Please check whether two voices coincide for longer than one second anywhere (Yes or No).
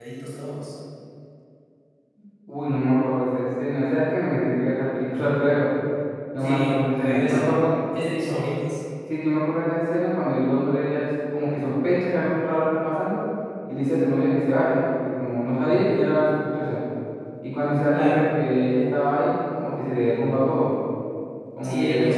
Yes